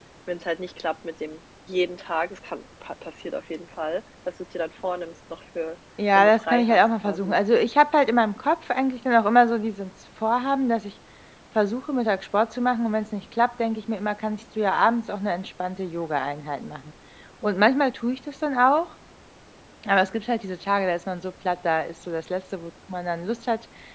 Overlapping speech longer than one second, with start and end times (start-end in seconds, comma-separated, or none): 6.2-7.4